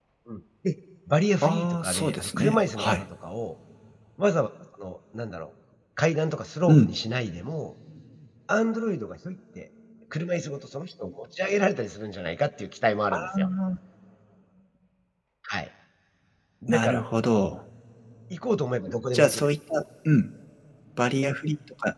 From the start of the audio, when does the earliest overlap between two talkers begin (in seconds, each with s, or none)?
1.4 s